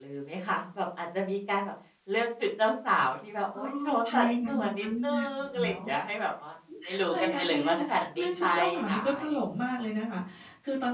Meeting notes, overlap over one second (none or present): present